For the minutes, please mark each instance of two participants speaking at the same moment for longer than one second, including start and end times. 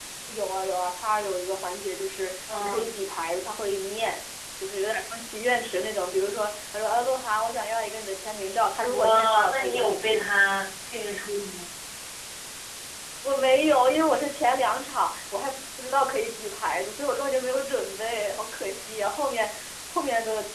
8.9-10.3

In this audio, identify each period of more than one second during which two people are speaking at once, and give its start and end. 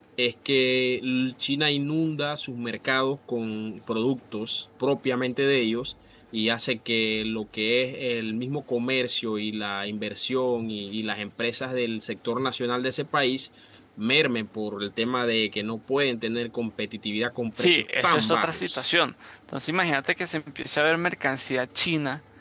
17.6-18.9

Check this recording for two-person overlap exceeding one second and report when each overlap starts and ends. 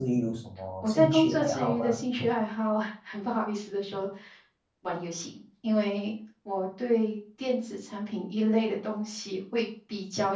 0.8-2.0

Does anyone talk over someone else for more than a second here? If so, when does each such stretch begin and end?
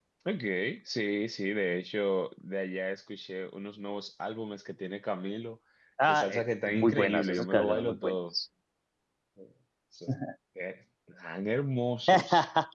6.1-8.1

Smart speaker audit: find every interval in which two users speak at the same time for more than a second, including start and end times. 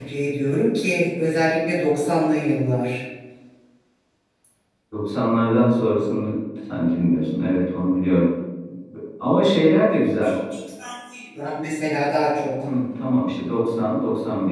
none

